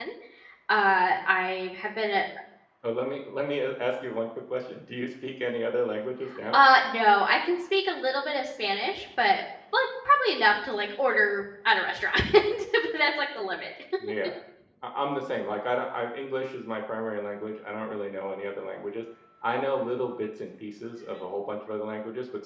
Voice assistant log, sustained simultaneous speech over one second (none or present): none